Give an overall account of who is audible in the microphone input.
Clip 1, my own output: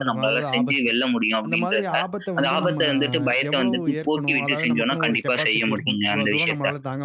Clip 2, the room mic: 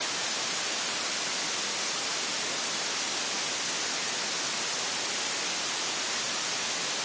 neither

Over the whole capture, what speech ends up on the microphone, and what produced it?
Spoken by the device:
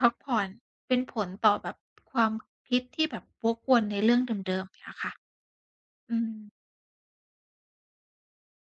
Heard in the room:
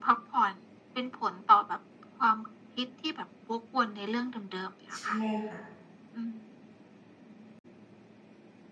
both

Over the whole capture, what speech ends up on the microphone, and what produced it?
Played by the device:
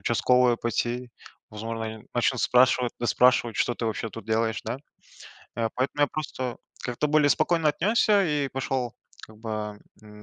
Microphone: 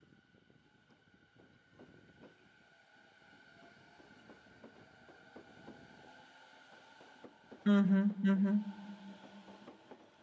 user only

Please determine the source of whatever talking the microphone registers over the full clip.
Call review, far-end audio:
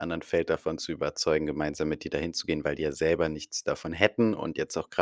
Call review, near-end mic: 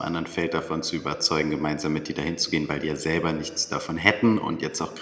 echo only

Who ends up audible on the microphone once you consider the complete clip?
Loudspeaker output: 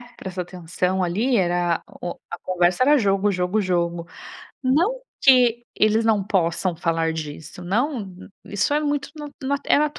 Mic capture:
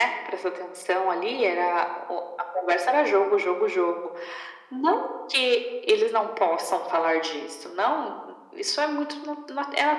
echo only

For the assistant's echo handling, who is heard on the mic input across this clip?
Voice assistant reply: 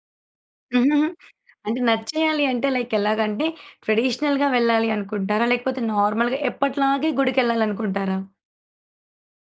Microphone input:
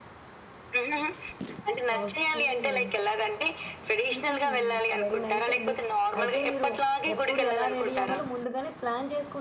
both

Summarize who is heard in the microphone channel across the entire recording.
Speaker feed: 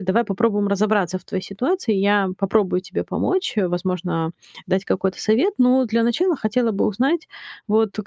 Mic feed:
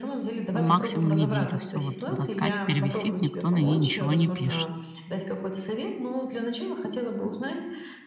both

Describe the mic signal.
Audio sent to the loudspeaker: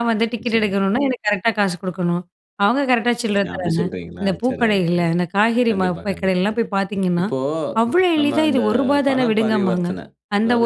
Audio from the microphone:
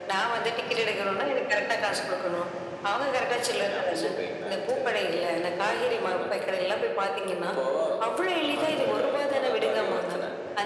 echo only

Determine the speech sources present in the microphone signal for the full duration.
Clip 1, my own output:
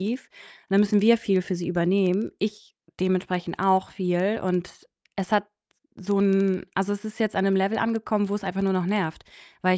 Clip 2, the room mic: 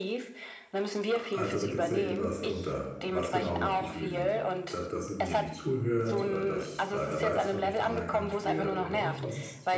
both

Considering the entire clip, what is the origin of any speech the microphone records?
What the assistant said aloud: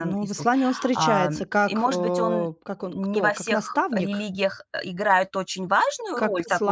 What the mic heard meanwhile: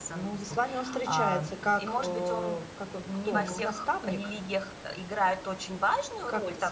both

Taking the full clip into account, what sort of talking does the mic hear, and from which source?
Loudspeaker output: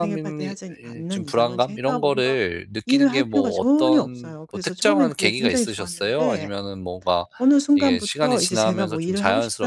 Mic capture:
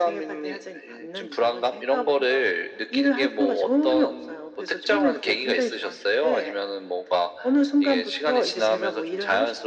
echo only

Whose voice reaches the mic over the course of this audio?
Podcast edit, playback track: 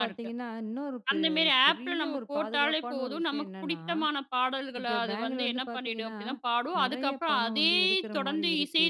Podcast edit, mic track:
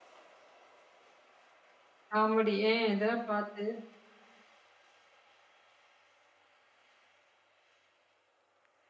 user only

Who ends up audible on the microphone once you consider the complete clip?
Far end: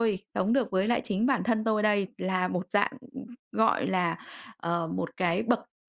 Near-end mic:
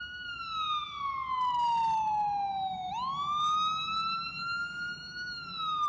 neither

